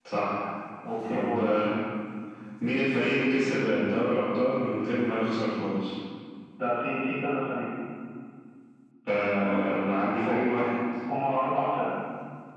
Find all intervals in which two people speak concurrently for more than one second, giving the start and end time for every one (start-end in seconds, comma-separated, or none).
none